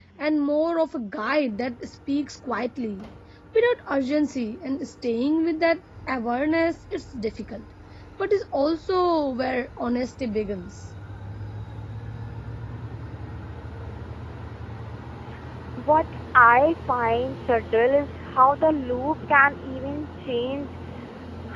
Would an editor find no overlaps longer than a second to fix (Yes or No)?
Yes